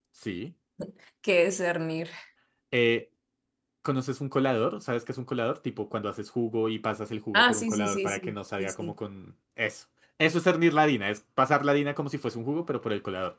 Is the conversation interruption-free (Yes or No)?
No